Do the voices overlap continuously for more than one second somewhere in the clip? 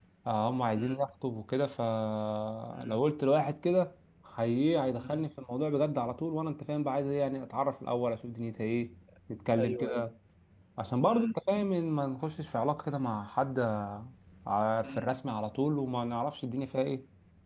No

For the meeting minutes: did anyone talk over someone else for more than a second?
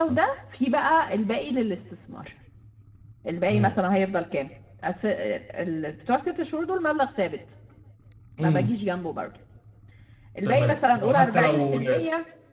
Yes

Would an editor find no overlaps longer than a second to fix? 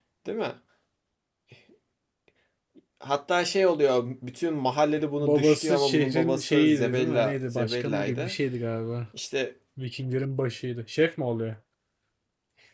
No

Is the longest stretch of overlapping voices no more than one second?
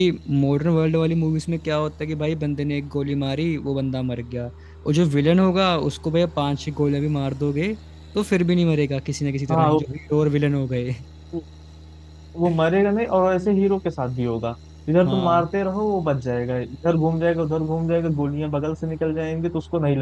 Yes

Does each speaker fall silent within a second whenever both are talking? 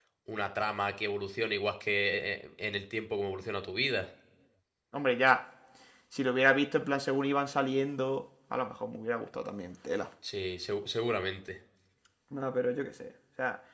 Yes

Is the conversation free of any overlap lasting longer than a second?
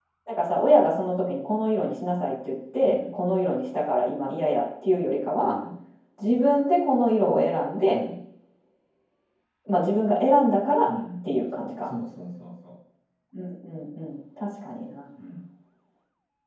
Yes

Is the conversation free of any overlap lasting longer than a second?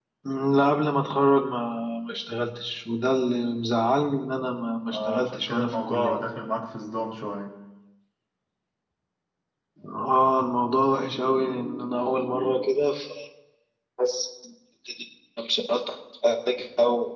No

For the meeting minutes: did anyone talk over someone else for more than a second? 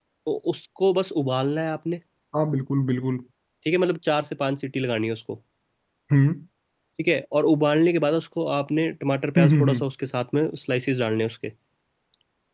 No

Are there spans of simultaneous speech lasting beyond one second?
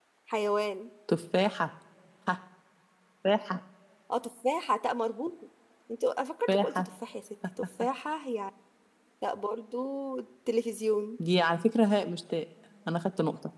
No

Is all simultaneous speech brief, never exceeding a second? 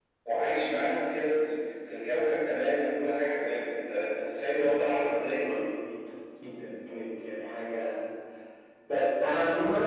No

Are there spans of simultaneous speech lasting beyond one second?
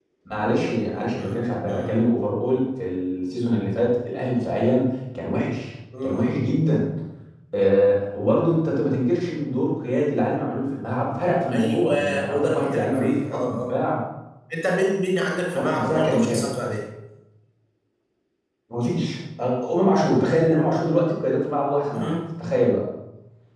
Yes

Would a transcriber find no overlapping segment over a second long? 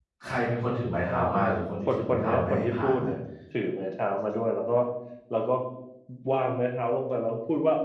No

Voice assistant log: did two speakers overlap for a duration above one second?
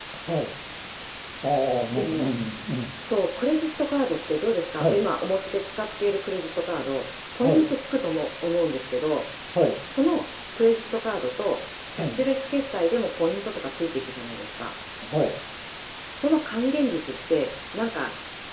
No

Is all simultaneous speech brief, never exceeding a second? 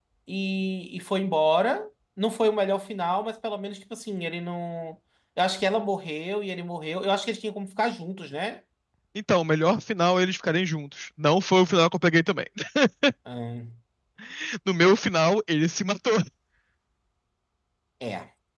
Yes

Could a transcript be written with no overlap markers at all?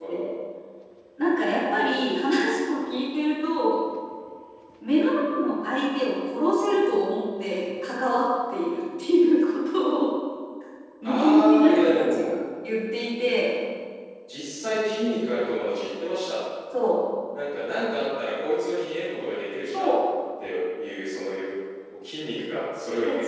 No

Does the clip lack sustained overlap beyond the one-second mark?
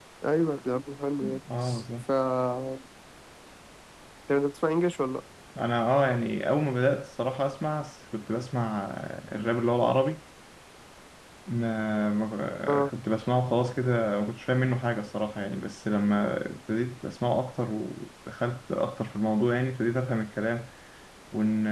Yes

